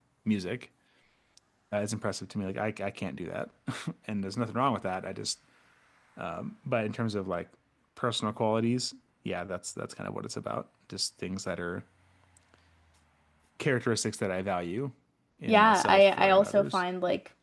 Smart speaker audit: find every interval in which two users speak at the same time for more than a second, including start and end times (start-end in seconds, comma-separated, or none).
15.5-16.8